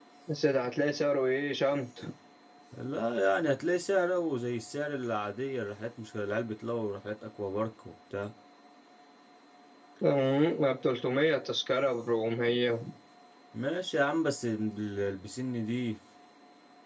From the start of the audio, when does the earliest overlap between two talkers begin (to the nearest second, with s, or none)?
none